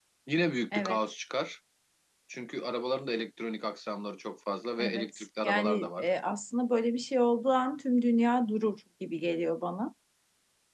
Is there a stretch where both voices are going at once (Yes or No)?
Yes